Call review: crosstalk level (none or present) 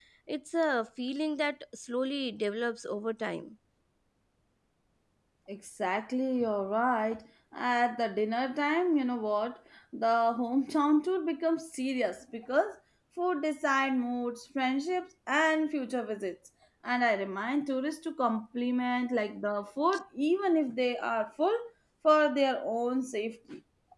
none